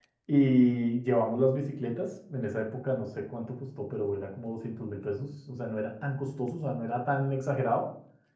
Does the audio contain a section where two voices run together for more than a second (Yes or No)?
No